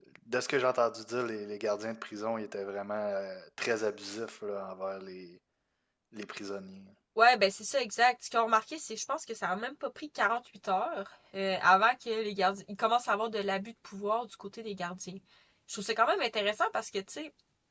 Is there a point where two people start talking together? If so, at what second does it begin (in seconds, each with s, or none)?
none